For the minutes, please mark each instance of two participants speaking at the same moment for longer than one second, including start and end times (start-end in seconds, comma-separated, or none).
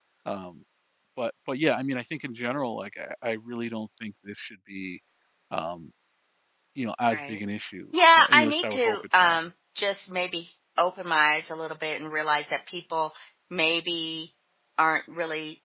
8.2-9.4